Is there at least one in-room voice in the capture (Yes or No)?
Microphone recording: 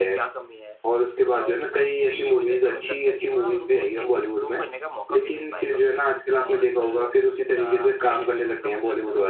Yes